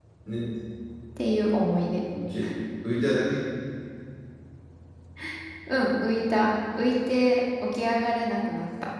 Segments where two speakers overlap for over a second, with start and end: none

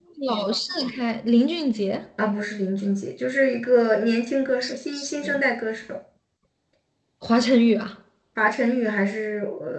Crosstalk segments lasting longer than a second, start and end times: none

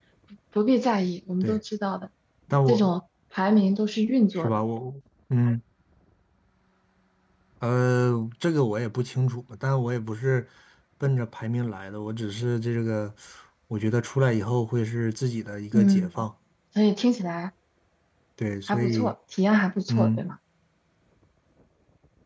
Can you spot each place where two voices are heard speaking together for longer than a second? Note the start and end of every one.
none

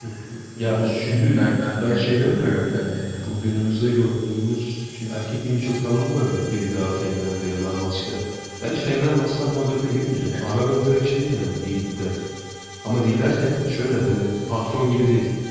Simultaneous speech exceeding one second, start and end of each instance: 0.6-2.8

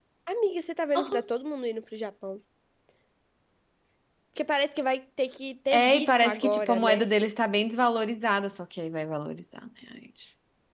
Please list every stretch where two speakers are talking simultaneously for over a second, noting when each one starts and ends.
5.7-7.1

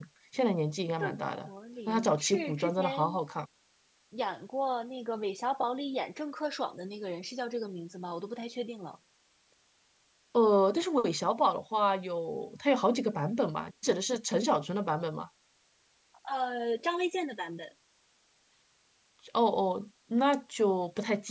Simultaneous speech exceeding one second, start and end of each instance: 1.9-3.1

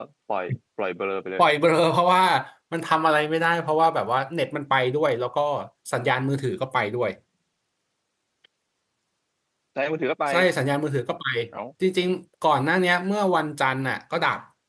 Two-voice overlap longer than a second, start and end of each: none

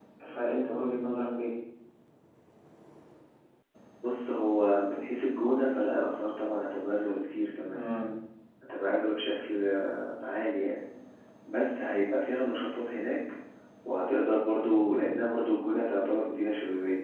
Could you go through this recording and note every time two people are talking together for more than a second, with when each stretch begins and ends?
none

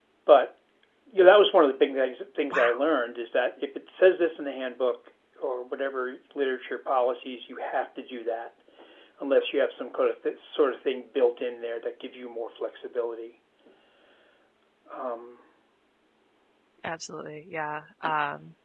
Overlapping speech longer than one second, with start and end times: none

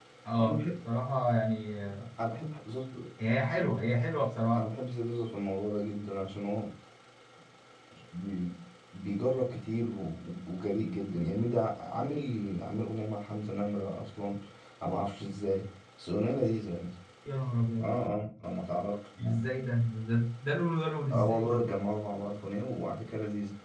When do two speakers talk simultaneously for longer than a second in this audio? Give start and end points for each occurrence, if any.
none

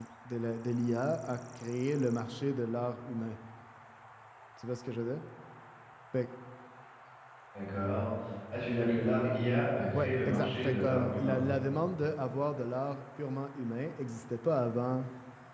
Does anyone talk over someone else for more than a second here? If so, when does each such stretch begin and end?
9.9-11.4

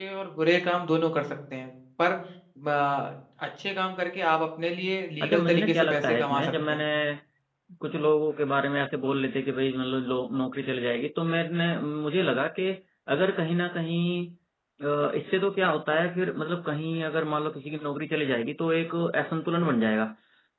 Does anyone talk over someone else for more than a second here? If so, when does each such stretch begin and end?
5.2-6.8

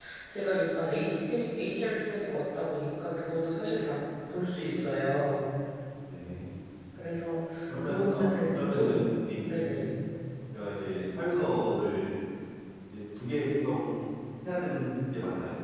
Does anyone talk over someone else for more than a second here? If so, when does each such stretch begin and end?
7.7-9.1

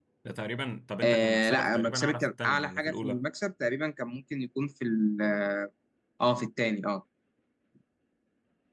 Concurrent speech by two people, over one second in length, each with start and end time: 1.0-3.2

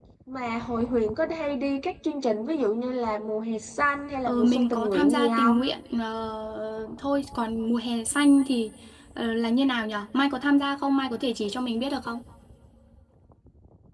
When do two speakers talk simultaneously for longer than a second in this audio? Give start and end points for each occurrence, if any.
4.2-5.6

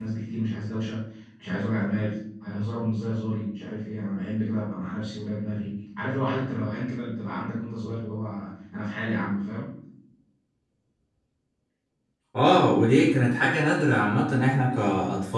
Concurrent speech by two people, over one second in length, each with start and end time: none

